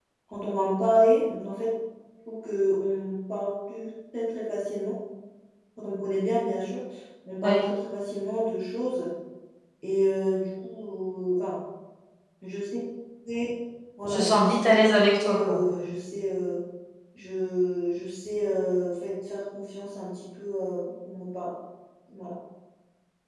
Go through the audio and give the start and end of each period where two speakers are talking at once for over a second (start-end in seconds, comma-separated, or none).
14.1-15.8